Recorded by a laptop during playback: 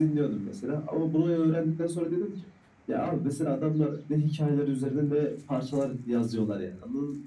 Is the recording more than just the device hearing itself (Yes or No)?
No